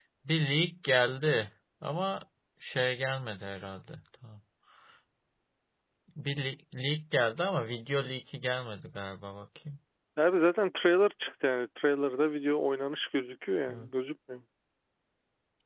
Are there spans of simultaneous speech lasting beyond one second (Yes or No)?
No